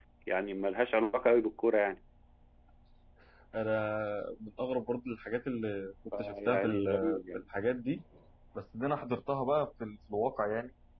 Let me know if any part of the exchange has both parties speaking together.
Yes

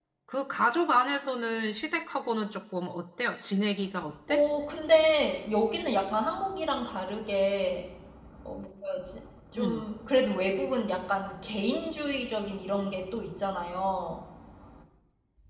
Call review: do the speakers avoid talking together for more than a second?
Yes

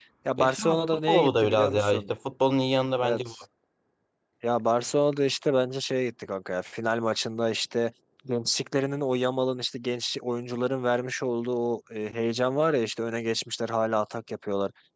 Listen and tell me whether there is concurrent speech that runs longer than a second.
Yes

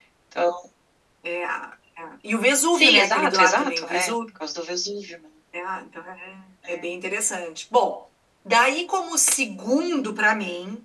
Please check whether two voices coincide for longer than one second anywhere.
Yes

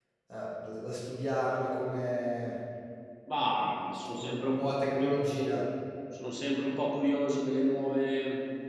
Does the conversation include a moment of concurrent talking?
Yes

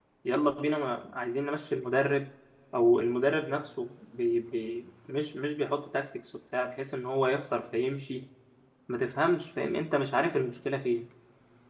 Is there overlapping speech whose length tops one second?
No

